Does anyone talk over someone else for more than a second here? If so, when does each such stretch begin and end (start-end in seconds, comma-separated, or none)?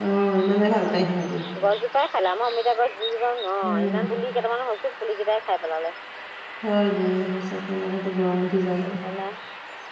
none